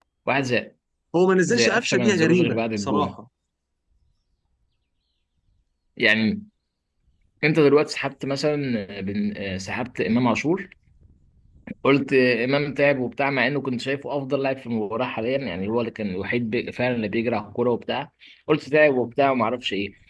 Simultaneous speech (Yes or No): Yes